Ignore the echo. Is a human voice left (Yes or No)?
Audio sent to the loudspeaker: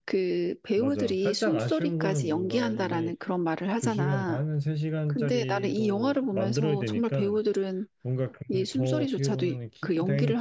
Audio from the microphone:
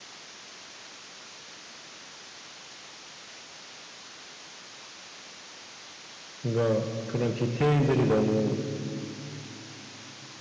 Yes